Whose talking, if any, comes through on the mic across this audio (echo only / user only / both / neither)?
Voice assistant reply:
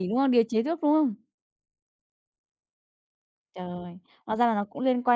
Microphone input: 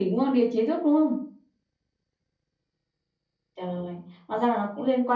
echo only